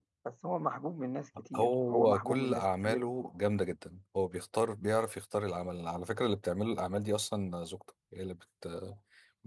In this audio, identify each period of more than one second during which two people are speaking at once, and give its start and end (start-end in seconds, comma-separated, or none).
1.5-3.1